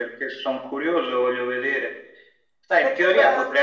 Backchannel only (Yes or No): Yes